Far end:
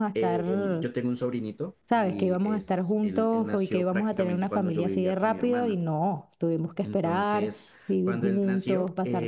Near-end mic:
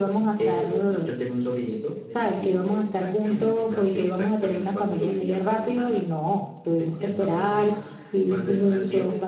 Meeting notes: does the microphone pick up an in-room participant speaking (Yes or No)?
Yes